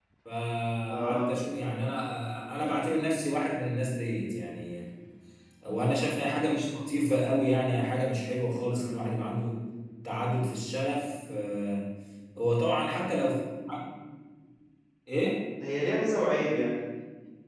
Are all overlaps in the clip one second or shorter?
Yes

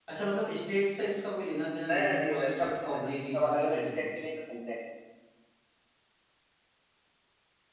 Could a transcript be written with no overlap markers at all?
No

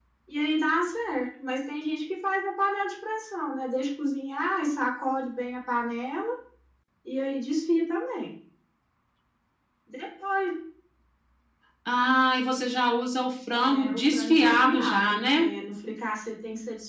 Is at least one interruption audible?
Yes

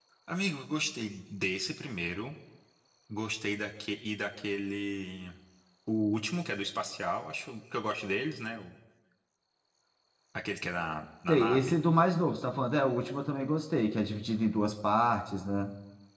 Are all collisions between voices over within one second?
Yes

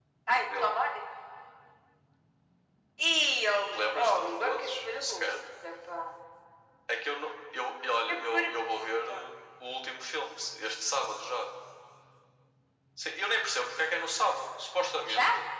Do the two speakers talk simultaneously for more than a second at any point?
Yes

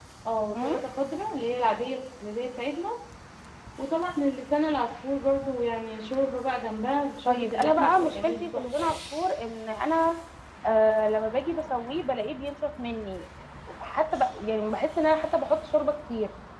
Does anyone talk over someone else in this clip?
Yes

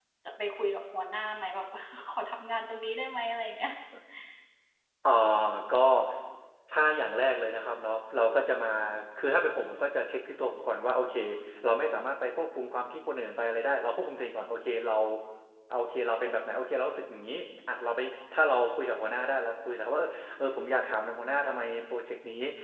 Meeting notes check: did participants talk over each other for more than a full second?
No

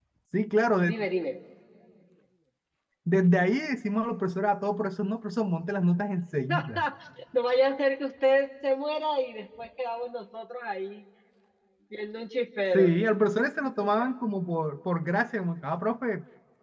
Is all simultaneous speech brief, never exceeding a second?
Yes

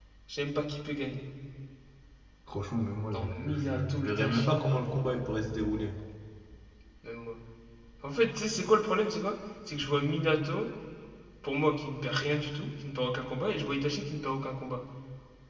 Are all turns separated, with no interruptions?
No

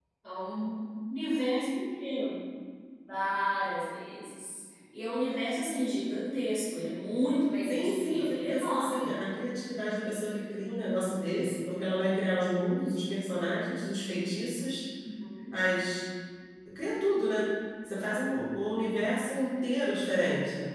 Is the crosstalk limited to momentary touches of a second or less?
No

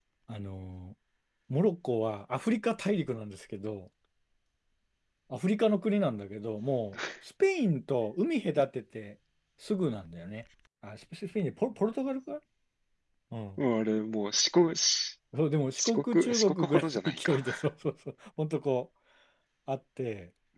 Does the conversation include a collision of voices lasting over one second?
Yes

